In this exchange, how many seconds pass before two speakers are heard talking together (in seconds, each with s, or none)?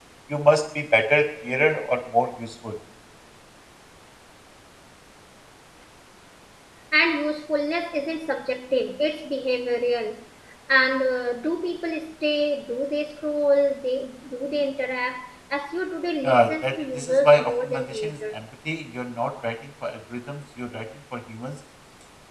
16.2 s